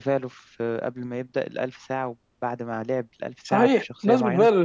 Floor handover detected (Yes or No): Yes